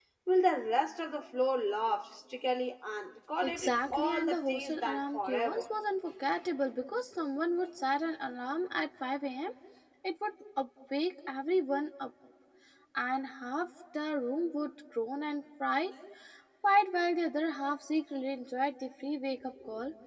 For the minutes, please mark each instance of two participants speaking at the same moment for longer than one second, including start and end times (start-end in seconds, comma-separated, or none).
3.4-5.6